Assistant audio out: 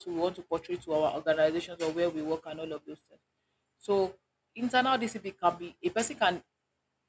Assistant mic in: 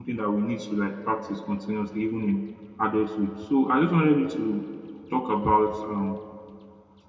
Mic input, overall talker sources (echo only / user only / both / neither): user only